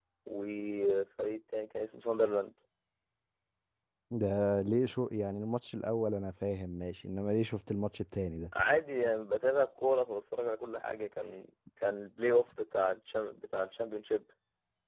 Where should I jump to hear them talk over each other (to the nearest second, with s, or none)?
none